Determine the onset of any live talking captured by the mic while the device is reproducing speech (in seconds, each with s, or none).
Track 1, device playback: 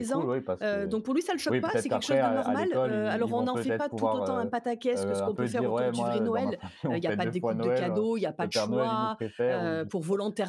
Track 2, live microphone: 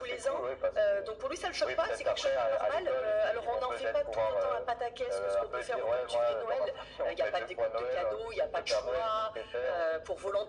none